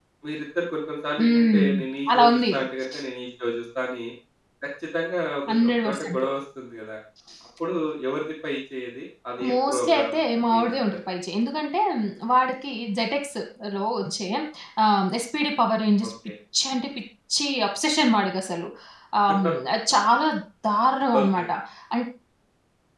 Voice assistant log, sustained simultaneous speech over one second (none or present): present